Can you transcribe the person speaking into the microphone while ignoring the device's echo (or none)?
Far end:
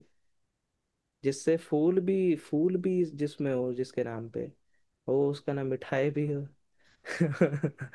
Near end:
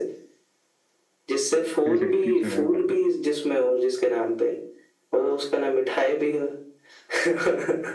रहती तो है भाई